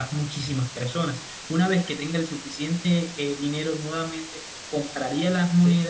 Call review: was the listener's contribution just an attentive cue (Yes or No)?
Yes